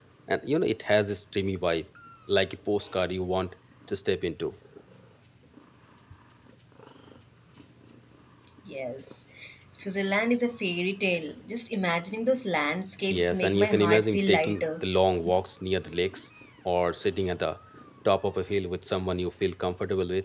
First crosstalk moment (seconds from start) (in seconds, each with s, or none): 13.0 s